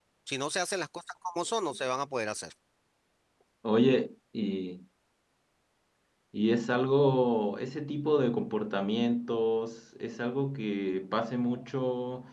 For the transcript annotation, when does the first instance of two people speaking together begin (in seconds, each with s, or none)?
none